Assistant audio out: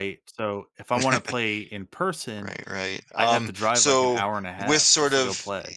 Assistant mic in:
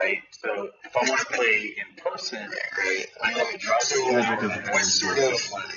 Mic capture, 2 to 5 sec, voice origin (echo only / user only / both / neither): both